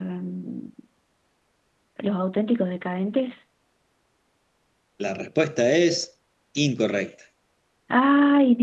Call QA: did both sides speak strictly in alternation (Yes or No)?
Yes